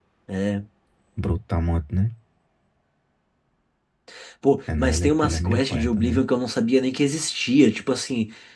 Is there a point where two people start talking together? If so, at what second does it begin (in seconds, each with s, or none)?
4.8 s